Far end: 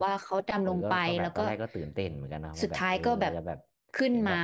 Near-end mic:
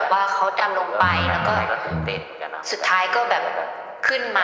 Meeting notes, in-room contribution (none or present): present